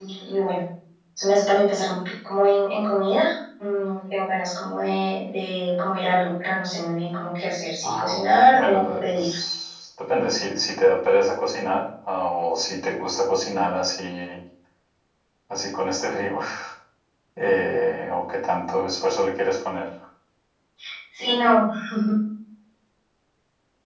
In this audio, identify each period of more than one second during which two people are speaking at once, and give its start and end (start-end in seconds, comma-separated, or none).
7.8-9.3